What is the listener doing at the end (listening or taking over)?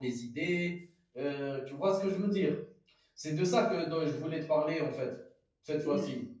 taking over